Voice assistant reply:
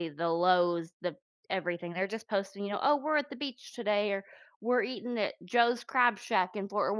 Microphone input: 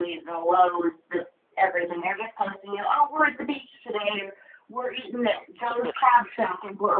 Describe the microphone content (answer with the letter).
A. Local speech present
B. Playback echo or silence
A